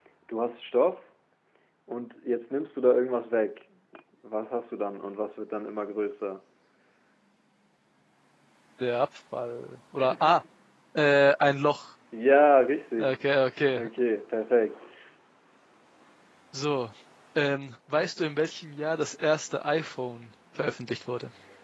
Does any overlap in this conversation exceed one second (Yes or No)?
No